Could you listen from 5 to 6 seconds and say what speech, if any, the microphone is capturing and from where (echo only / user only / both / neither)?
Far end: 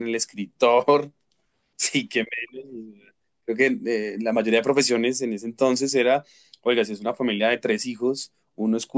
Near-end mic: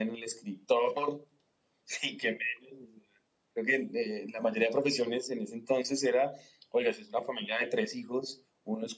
echo only